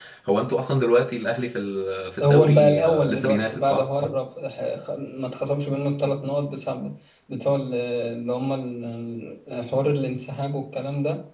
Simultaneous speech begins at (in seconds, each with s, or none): 2.2 s